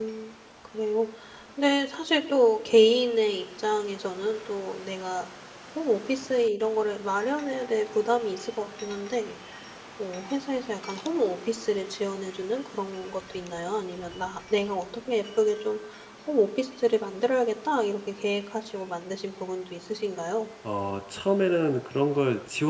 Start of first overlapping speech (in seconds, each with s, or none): none